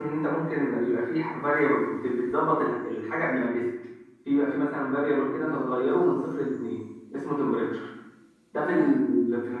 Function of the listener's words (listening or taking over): listening